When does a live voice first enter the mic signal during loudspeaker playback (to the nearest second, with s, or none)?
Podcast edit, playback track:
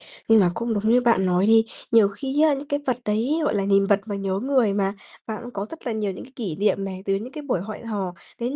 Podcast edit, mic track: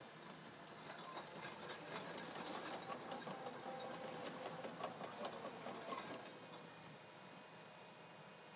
none